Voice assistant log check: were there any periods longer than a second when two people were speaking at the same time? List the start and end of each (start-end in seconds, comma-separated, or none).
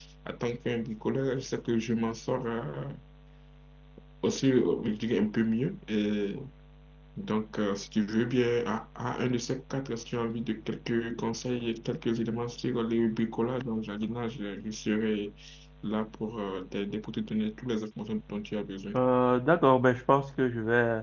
none